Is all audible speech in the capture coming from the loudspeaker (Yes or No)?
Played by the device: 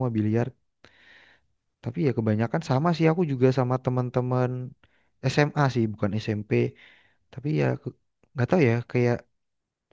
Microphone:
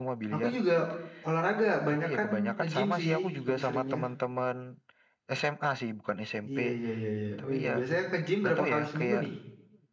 No